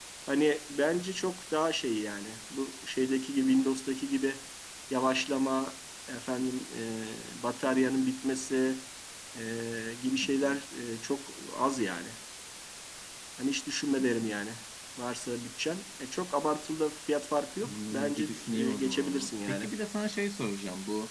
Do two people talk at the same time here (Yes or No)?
Yes